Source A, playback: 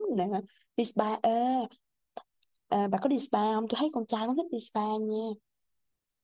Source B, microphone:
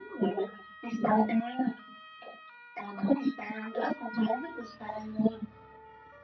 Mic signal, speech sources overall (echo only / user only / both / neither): echo only